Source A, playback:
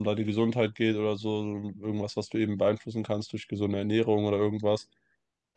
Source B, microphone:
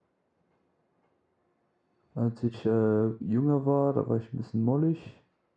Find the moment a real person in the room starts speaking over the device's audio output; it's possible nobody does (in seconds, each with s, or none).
2.1 s